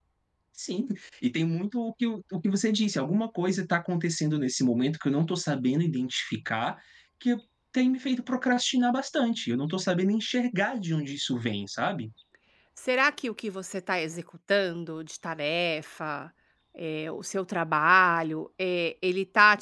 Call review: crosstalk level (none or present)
none